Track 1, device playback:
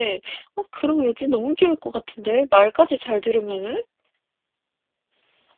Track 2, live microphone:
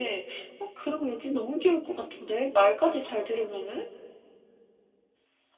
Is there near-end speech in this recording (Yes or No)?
No